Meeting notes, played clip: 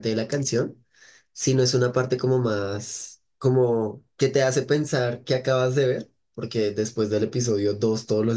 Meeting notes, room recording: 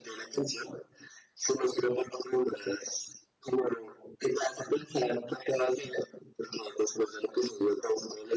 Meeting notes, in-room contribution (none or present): none